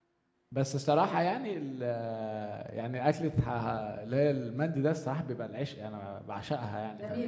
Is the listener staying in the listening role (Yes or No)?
No